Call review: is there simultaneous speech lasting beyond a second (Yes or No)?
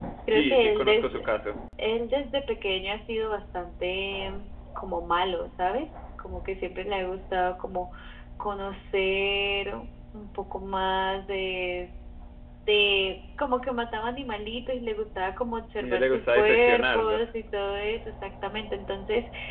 Yes